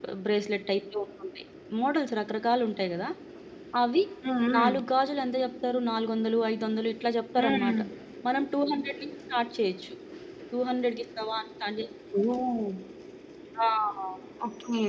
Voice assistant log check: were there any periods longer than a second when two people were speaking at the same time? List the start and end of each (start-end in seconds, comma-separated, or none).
none